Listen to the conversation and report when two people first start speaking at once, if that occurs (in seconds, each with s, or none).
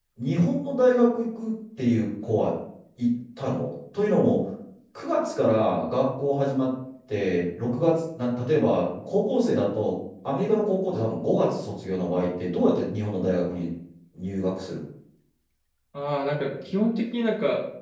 none